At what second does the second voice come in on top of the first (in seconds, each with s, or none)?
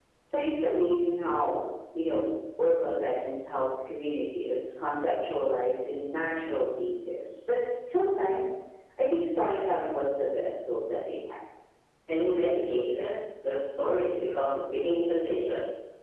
none